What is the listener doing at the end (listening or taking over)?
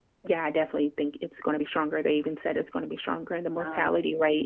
listening